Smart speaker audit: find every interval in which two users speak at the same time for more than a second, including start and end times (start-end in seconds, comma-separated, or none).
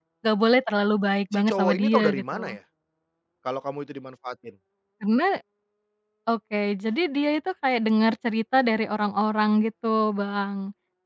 1.3-2.6